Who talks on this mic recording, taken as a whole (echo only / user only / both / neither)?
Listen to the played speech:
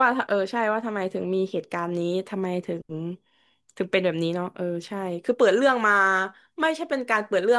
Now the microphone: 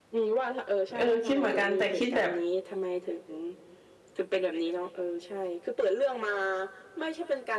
both